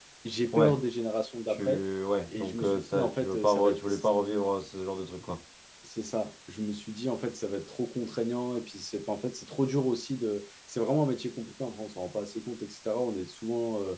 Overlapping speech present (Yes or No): Yes